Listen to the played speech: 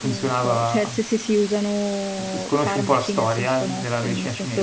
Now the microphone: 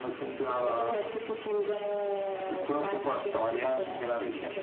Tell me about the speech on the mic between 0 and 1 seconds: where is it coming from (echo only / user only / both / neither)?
both